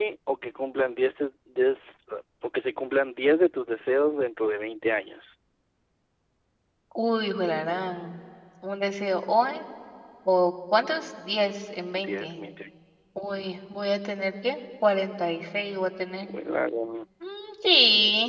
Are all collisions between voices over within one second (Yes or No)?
Yes